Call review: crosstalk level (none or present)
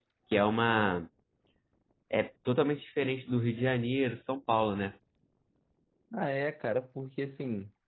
none